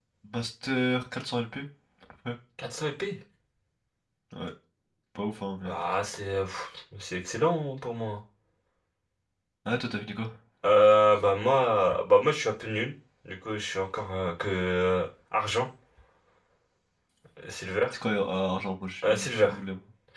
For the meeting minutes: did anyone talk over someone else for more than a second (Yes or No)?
No